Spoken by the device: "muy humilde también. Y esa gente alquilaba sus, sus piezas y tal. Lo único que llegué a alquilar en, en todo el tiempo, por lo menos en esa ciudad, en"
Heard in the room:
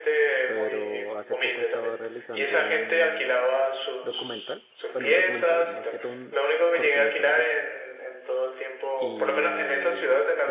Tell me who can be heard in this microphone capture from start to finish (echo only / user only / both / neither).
both